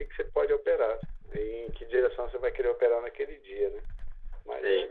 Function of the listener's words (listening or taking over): taking over